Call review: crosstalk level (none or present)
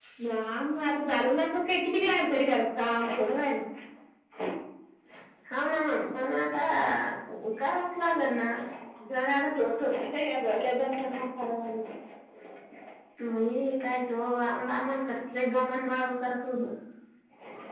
none